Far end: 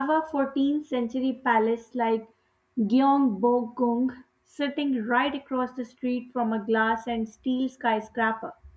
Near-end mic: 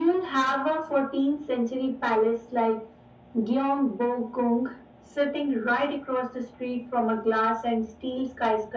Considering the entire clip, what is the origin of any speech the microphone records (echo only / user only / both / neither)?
echo only